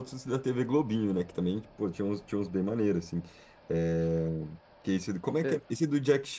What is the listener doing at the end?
listening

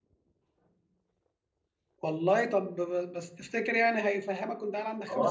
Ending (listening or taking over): taking over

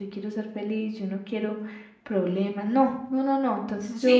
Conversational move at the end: taking over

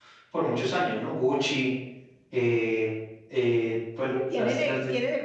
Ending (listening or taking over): taking over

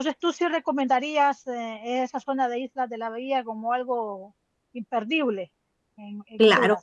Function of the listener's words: taking over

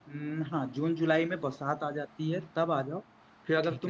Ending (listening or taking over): listening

